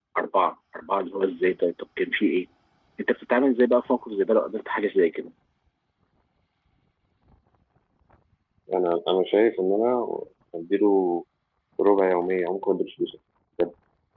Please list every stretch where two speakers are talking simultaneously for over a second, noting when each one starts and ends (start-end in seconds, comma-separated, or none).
none